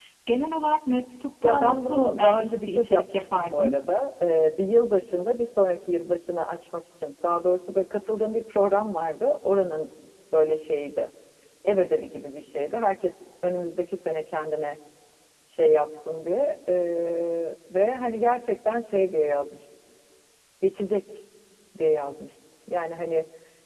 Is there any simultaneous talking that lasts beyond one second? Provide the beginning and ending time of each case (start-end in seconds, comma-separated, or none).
1.4-3.8